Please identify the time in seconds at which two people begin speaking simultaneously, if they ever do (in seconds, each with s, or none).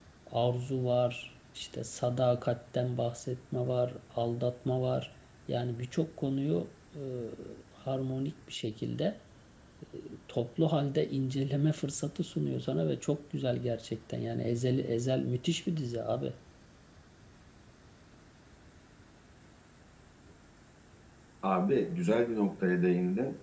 none